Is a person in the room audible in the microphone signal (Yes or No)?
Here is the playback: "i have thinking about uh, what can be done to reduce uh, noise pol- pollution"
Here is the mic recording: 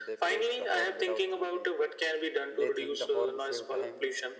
Yes